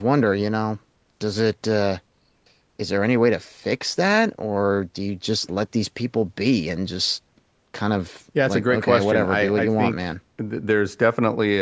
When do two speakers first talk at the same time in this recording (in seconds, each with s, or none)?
8.4 s